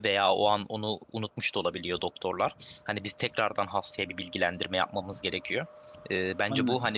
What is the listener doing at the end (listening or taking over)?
listening